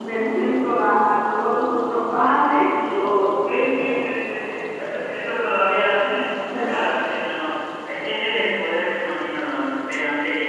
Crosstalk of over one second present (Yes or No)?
No